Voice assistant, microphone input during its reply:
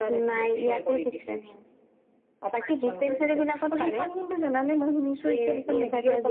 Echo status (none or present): present